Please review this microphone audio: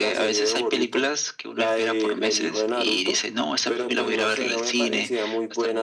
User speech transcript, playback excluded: none

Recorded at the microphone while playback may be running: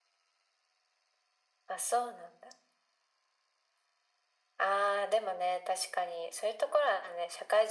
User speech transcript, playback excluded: none

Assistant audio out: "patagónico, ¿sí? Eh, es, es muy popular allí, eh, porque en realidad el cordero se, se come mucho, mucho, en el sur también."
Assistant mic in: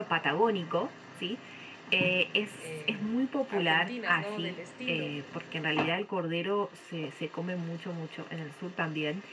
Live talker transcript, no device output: em, argentinas, ¿no? Del estilo.

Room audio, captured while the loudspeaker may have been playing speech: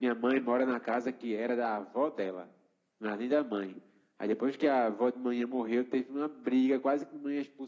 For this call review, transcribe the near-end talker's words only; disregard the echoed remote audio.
none

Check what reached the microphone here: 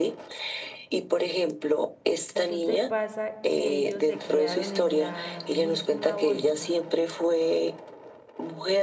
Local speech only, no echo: Resulta y pasa que ellos se criaron en la misma bolsa,

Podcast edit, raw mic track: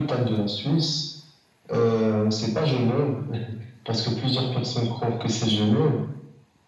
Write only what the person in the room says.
none

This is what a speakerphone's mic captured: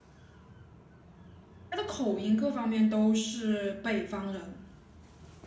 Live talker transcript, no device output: 她的口音各方面都是北方人，

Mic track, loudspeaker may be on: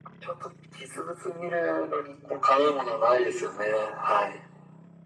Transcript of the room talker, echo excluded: none

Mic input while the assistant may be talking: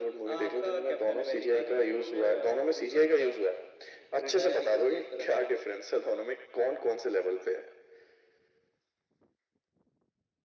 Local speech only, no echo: none

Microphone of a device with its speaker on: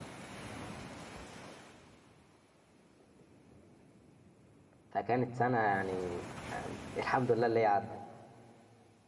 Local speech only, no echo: فكانت سنة يعني آه، الحمد لله اللي هي عدت

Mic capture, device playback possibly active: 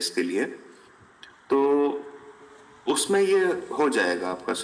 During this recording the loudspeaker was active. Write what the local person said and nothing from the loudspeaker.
none

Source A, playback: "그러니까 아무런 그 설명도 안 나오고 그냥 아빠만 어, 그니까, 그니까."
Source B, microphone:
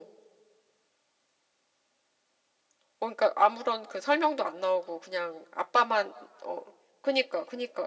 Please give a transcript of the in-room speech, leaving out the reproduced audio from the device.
none

